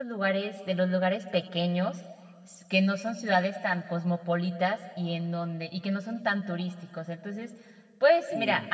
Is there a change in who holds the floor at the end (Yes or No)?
No